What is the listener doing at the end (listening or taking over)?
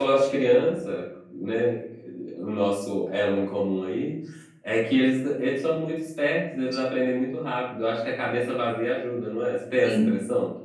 taking over